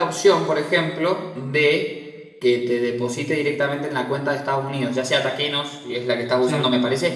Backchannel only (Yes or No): Yes